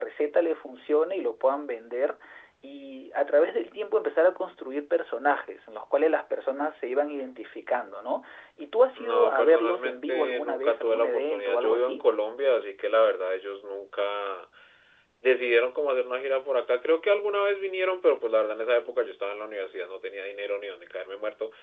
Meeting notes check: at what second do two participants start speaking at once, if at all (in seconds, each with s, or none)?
9.0 s